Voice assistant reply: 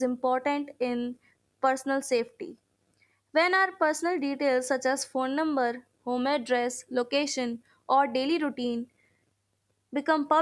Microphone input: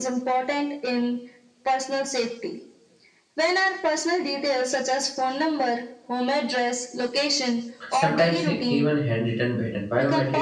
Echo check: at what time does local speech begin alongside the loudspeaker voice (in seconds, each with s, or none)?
7.9 s